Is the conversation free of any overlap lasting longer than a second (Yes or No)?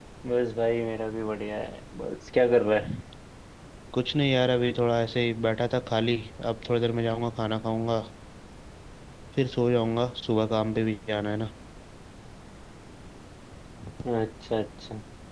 Yes